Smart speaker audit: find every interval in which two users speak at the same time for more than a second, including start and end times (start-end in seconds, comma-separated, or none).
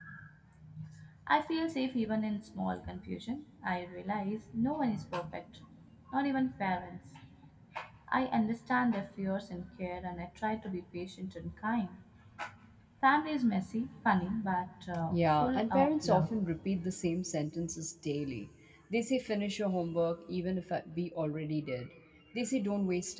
15.1-16.3